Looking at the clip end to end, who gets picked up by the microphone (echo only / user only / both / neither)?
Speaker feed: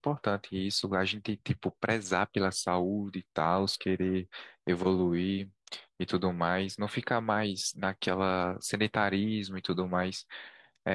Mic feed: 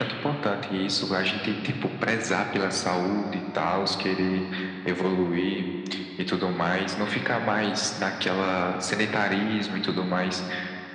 echo only